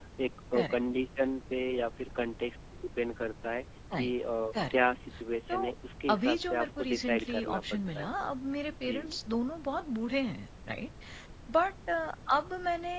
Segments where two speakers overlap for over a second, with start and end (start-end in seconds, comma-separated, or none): 6.1-8.1